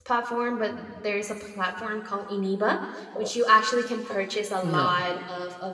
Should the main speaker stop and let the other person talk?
No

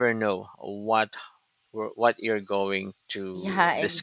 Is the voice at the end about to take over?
Yes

